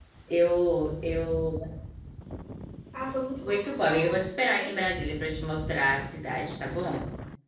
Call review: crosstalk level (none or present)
present